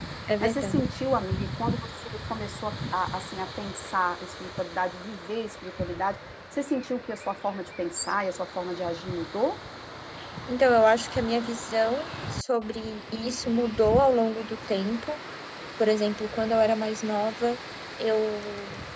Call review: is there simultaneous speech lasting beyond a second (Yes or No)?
No